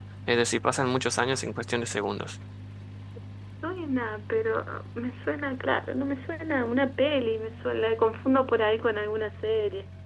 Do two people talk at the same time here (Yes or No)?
No